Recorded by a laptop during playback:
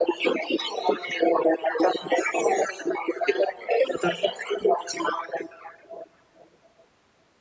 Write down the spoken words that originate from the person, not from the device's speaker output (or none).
शेतांमधून जाताना तो